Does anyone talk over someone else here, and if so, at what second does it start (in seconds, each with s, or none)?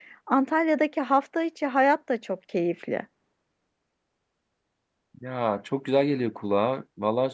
none